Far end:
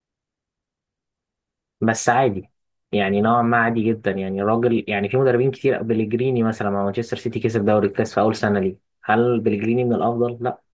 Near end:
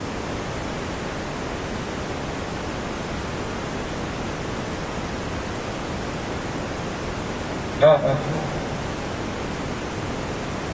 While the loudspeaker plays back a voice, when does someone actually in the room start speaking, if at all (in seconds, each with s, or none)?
7.8 s